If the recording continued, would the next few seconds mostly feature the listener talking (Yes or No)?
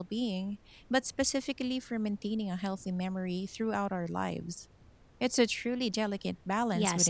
Yes